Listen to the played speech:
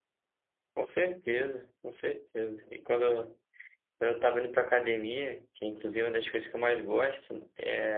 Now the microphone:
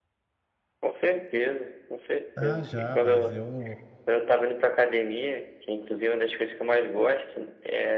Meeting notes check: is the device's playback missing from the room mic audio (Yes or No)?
No